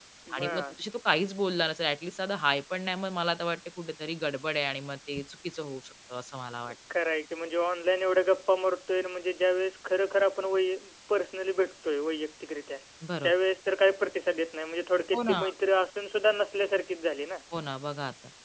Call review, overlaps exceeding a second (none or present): none